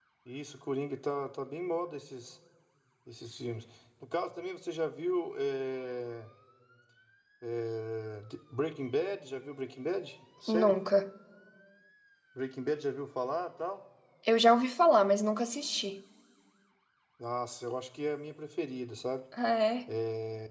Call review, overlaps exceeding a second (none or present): none